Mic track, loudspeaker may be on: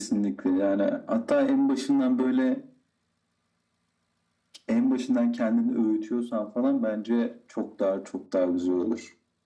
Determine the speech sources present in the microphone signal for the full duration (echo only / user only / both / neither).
echo only